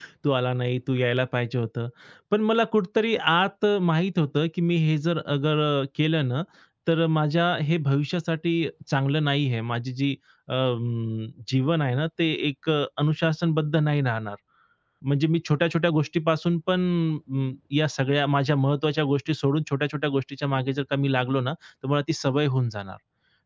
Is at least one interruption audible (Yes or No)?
No